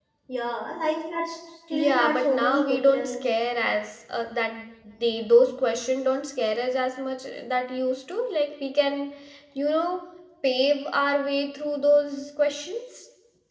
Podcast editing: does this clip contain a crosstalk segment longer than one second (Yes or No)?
Yes